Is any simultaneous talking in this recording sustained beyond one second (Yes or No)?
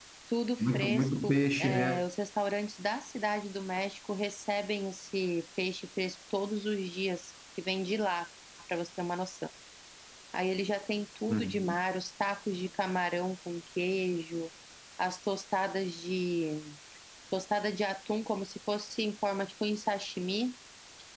Yes